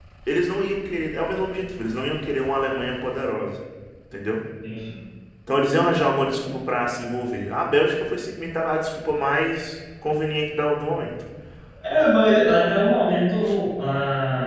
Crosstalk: none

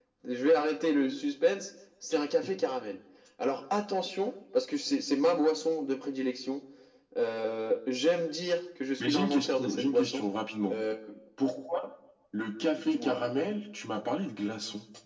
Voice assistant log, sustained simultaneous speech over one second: present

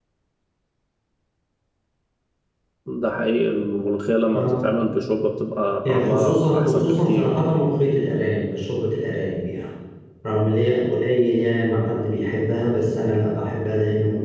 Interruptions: present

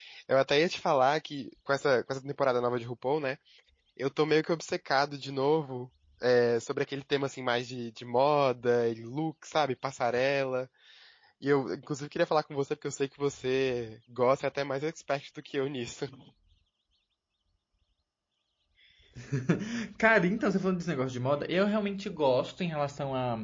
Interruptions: none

